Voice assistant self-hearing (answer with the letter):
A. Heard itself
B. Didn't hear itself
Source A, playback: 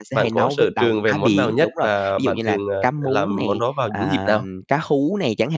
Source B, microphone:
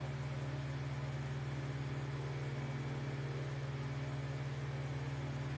B